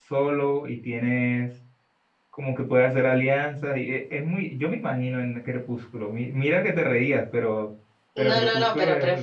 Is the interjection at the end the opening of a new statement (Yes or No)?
Yes